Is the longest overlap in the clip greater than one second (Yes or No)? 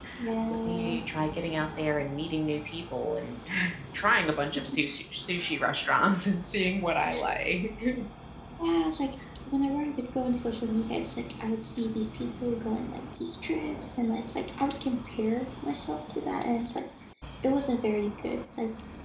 No